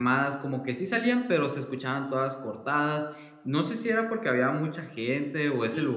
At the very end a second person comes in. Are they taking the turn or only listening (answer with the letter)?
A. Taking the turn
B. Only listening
A